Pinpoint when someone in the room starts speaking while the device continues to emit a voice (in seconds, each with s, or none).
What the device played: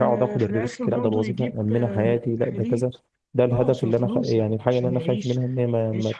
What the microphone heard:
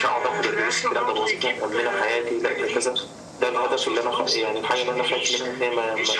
none